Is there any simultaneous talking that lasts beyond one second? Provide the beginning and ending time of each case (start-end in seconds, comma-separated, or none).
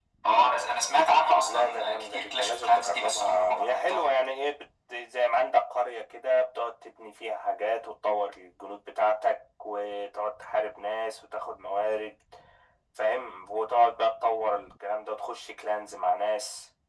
1.4-4.1